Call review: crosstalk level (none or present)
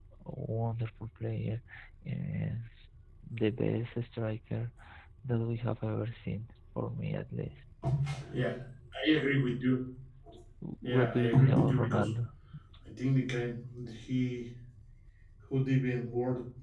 present